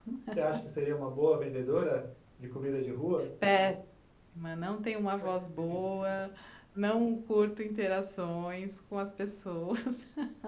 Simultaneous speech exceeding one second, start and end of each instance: none

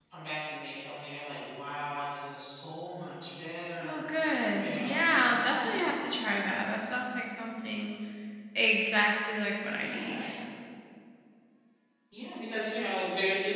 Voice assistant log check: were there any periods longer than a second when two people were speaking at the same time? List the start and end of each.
4.6-5.8

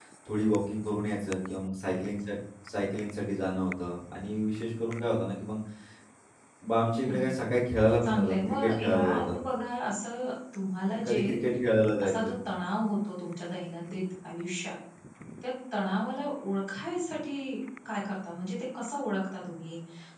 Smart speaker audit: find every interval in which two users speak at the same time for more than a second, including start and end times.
8.0-9.4

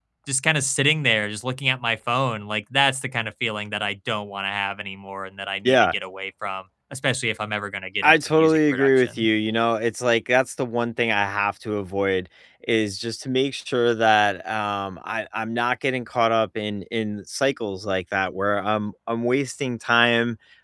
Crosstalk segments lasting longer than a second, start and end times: 8.0-9.3

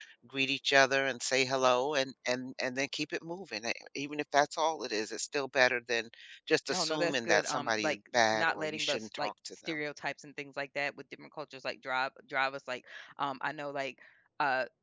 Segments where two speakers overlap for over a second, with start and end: 6.7-9.7

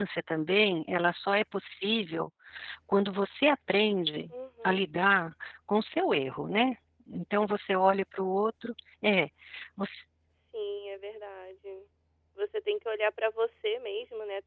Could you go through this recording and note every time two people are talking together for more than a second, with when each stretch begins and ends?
none

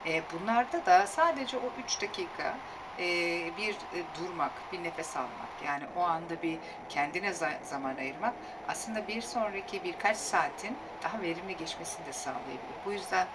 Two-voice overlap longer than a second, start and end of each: none

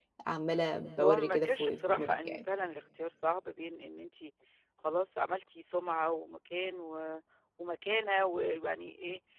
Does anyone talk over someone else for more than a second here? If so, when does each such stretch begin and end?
1.0-2.4

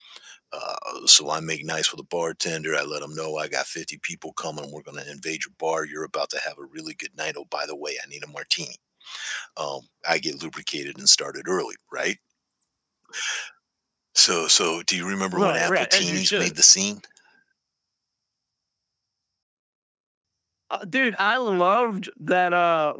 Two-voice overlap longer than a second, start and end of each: 15.3-16.5

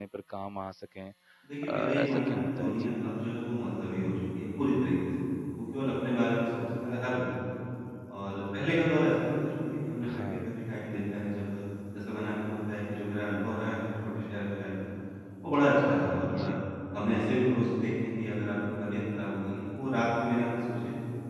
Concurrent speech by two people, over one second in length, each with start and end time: 1.7-2.9

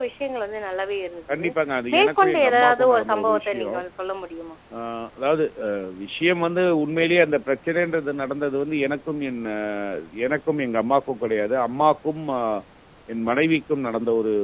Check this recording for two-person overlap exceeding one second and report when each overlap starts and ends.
1.9-3.8

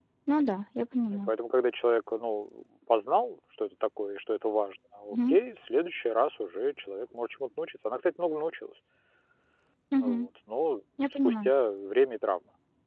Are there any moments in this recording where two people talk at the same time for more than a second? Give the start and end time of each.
none

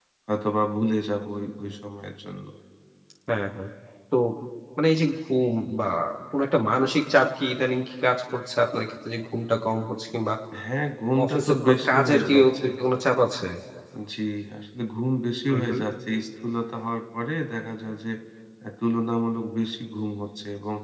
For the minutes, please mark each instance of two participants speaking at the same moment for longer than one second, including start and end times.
11.2-12.7

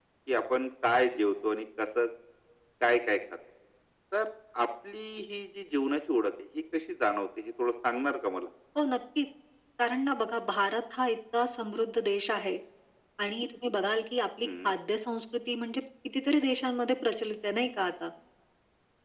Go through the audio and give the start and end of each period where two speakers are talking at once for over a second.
none

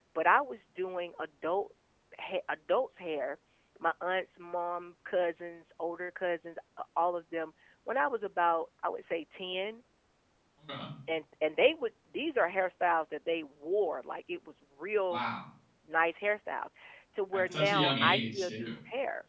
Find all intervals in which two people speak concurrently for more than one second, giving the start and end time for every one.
17.3-18.8

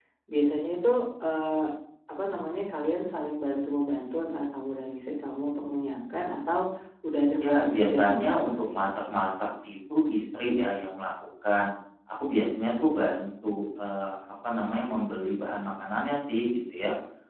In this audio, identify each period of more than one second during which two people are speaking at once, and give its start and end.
7.4-8.9

